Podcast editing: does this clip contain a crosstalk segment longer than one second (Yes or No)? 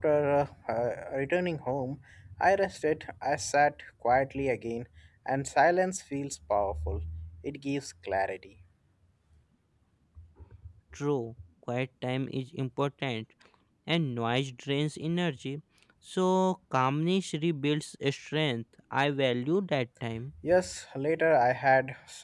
No